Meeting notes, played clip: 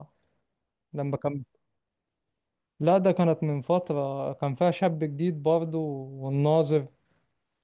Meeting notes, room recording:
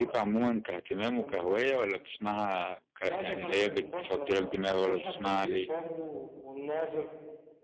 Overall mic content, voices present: both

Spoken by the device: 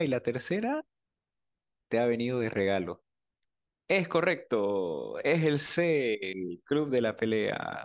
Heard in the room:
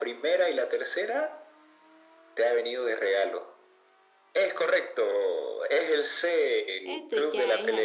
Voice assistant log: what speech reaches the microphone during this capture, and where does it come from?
both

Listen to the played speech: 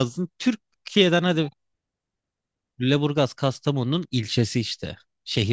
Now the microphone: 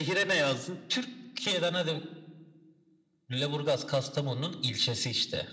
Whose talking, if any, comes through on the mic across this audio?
echo only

